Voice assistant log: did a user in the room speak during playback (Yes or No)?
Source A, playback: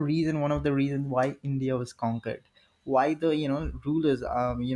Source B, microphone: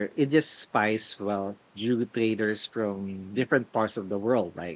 Yes